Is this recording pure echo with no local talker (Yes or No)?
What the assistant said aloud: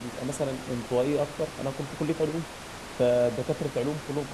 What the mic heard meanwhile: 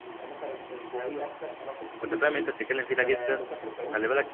No